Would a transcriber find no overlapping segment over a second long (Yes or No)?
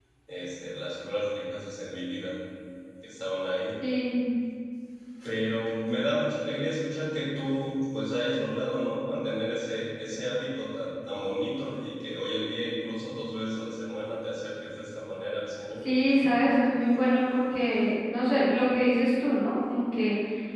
Yes